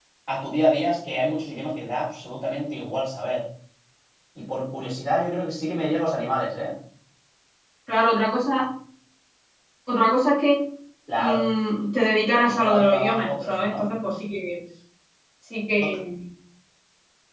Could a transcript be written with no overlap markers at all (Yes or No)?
No